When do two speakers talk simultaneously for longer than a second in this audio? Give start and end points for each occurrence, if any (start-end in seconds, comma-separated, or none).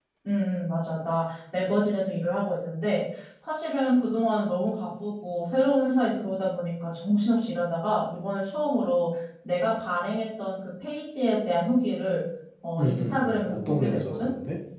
12.8-14.3